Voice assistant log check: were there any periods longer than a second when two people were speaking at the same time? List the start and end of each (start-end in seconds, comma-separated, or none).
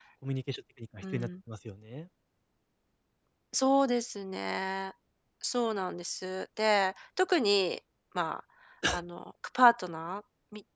none